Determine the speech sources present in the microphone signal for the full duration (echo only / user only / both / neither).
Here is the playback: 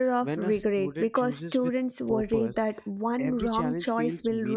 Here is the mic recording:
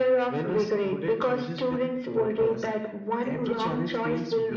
echo only